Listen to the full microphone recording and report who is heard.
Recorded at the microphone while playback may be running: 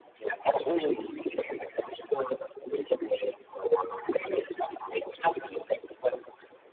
both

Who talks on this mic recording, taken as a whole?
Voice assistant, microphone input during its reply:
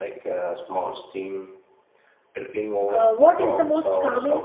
both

